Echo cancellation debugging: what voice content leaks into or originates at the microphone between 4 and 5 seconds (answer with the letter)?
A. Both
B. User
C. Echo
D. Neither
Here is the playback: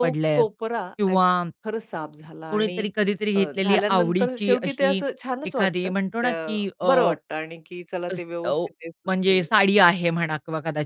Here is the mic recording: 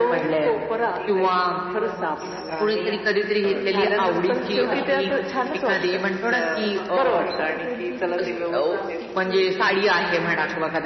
A